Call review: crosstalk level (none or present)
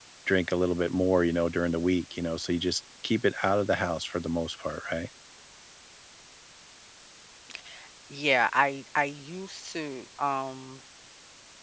none